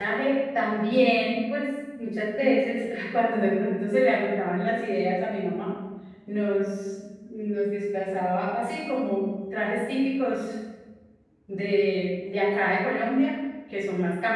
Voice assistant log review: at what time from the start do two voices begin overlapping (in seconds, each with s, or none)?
none